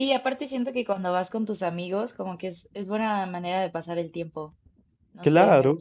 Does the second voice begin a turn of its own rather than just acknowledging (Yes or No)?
Yes